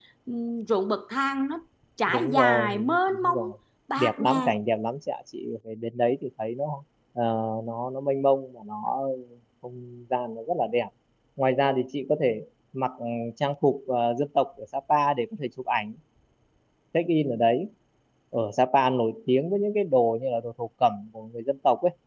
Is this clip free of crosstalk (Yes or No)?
No